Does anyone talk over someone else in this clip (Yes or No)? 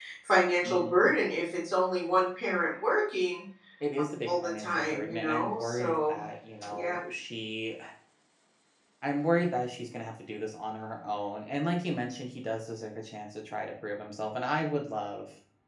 Yes